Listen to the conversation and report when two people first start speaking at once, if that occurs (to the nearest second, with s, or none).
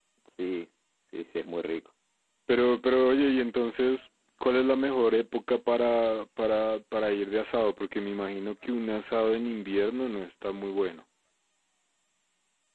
none